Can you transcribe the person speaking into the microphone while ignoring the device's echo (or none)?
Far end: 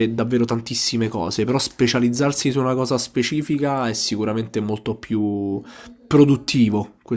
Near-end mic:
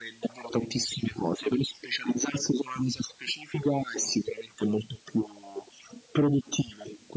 none